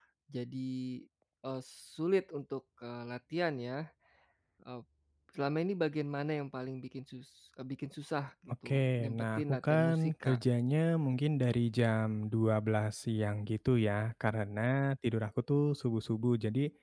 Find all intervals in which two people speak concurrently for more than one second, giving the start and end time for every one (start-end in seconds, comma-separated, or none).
8.7-10.4